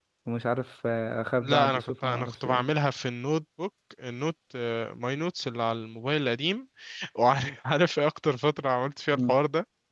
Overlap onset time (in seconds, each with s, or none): 1.4 s